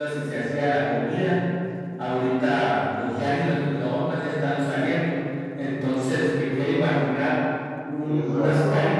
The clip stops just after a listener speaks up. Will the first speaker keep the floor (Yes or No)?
Yes